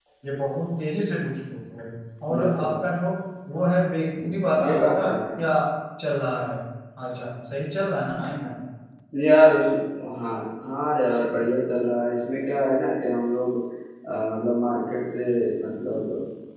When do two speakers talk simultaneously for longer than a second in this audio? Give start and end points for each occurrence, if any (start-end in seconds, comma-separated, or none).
4.2-5.5